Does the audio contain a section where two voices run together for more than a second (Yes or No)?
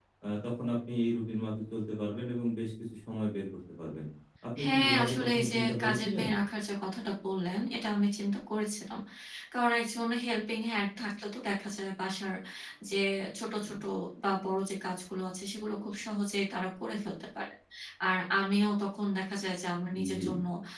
Yes